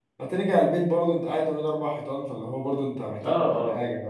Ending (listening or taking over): taking over